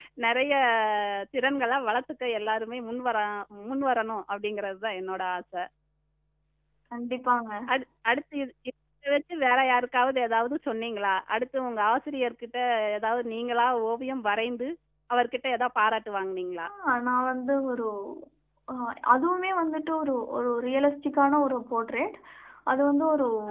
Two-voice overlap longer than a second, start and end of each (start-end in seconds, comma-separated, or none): none